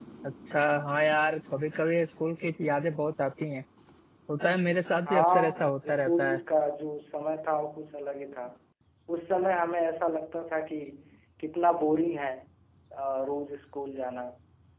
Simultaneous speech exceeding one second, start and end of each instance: 5.1-6.4

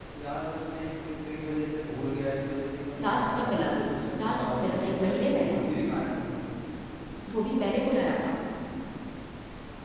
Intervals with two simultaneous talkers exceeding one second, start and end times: 3.0-5.6

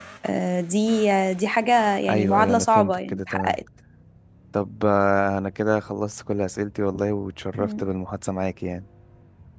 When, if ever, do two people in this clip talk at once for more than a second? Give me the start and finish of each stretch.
2.1-3.6

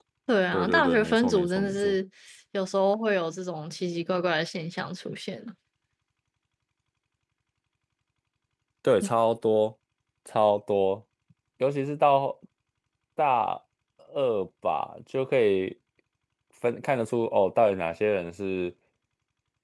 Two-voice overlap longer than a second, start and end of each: 0.5-2.0

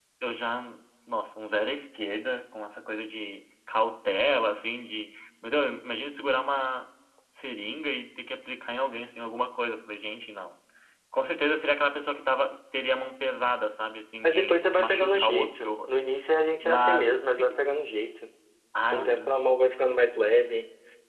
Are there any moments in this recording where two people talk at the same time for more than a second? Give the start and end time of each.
14.2-15.9

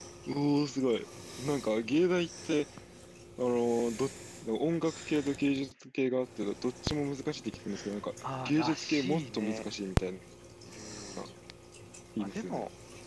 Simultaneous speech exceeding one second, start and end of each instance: 8.4-9.7

